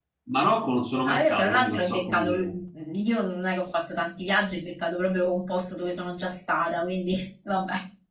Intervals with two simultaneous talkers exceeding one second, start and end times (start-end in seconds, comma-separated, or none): 1.1-2.5